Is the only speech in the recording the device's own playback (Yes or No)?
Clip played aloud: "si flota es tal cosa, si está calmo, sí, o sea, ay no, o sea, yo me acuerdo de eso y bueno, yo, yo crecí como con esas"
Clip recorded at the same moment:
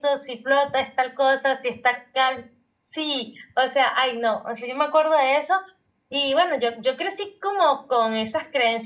Yes